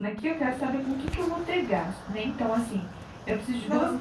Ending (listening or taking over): listening